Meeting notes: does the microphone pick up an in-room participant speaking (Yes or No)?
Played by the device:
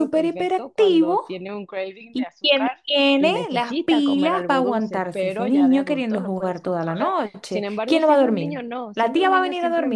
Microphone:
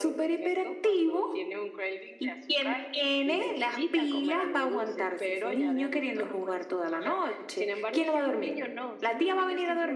No